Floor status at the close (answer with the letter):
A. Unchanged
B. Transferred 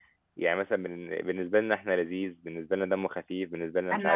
B